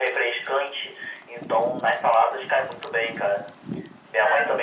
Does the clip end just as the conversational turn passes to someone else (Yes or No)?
No